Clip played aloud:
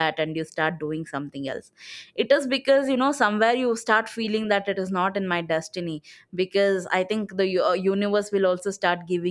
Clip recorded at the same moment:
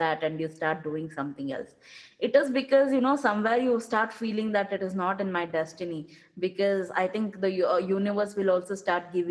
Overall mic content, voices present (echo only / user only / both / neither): echo only